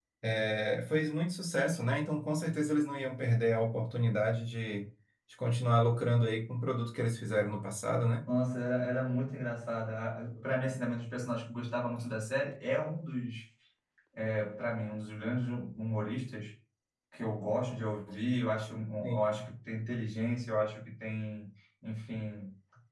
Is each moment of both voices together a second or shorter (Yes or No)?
Yes